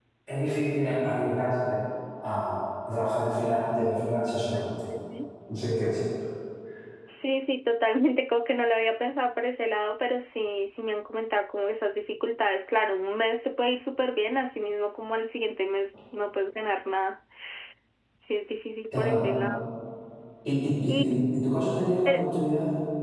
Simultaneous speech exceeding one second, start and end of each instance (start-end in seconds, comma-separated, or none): none